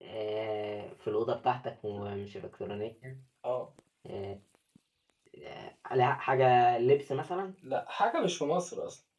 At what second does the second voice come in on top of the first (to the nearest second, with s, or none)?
none